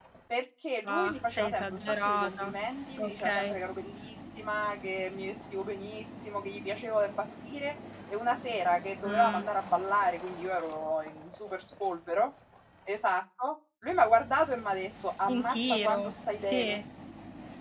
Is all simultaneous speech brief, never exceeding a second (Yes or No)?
No